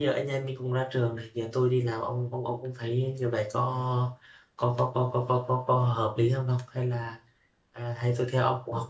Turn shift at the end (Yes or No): No